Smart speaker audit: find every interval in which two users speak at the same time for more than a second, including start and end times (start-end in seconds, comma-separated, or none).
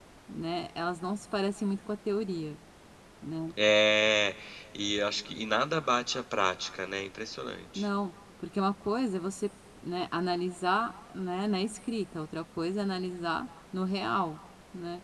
none